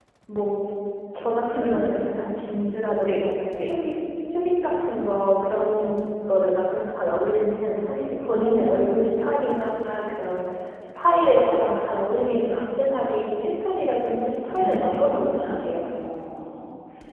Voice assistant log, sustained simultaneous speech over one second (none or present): present